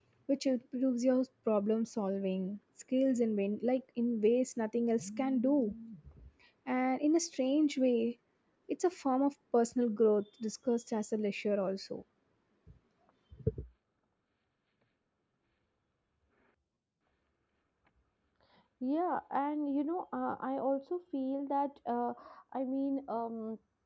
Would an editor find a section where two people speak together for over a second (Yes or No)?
No